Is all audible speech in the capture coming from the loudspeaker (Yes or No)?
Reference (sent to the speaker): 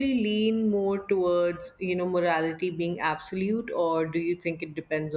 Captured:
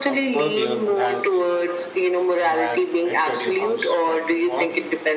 No